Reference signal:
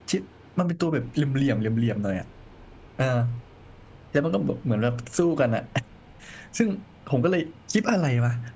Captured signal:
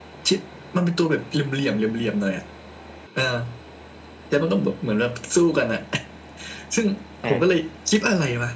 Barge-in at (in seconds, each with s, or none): 7.2 s